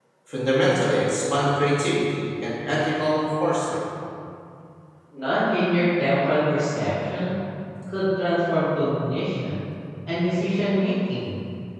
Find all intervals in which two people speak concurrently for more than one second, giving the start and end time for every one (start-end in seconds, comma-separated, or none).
none